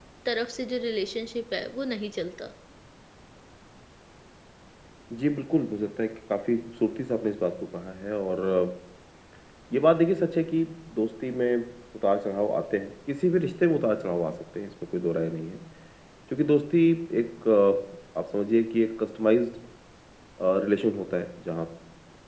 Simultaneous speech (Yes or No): No